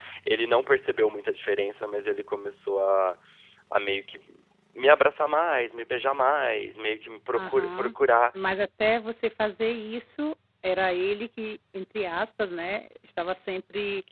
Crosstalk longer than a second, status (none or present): none